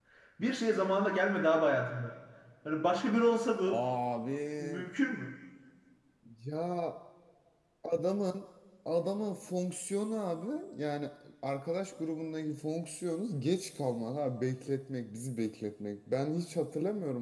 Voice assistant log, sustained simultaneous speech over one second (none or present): none